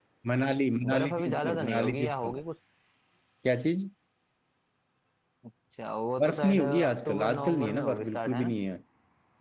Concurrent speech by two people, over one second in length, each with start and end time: 0.9-2.4, 6.2-8.5

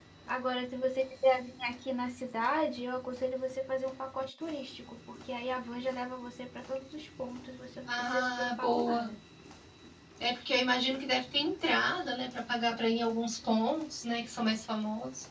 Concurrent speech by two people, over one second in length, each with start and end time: 7.9-9.1

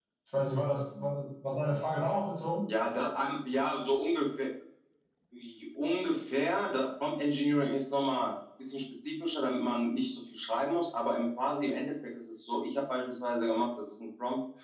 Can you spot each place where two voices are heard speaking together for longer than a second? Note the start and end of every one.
none

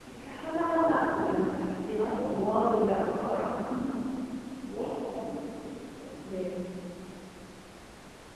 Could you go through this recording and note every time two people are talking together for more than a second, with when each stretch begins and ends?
2.0-3.3

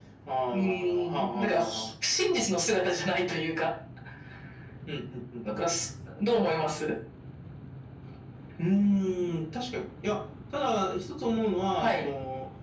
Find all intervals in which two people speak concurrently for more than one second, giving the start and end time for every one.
0.5-1.9

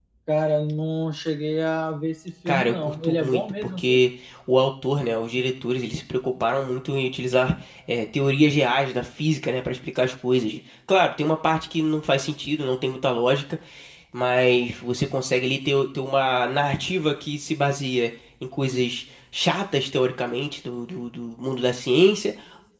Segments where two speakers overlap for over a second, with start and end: 2.4-4.0

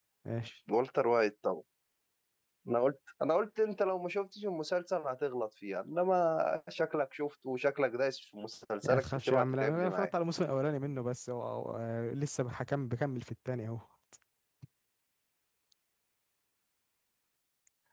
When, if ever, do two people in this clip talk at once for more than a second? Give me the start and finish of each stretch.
8.8-10.1

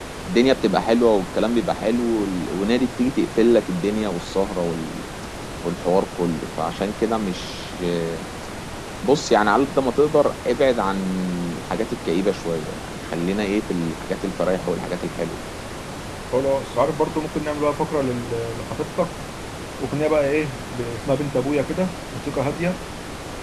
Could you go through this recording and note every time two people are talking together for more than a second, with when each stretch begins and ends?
none

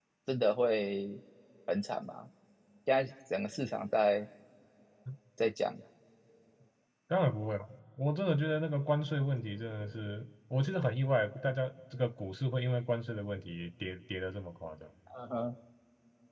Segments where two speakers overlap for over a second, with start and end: none

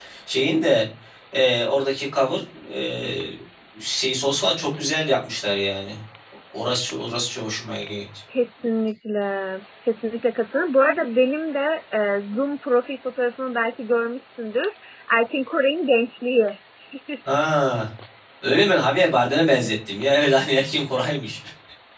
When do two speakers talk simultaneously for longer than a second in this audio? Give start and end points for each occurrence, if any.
none

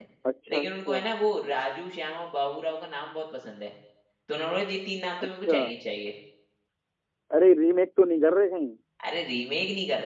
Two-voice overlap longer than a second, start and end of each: none

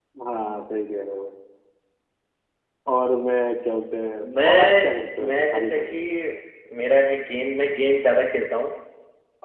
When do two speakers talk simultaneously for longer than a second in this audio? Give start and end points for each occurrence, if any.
4.2-6.0

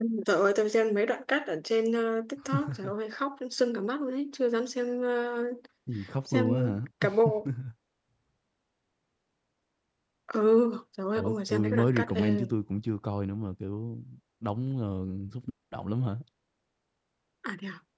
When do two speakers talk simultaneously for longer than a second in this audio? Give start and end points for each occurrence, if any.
11.2-12.5

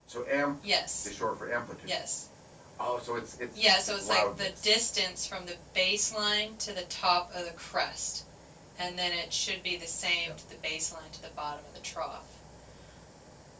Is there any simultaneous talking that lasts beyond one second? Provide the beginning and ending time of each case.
3.5-4.8

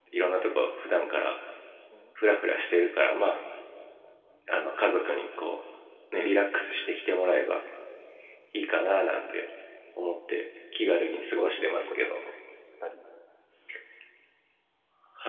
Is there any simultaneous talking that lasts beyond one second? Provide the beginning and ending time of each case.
10.8-12.2

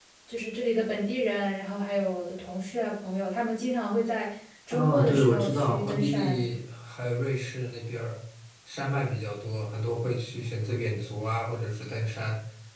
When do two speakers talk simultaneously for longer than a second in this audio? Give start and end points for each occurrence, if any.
4.7-6.4

